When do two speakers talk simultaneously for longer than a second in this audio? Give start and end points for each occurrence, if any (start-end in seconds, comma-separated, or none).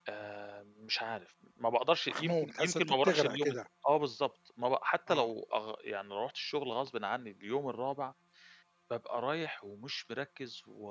2.1-3.5